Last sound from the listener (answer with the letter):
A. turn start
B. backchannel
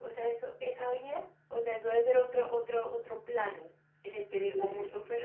B